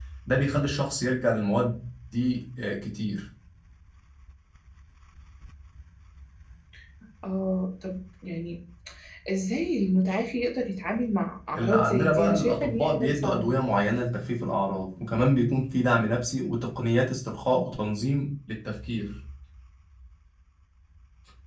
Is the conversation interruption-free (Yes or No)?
No